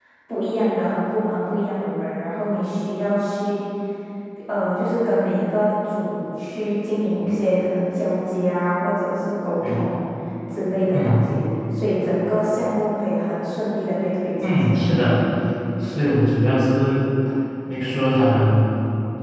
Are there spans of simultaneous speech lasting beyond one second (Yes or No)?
No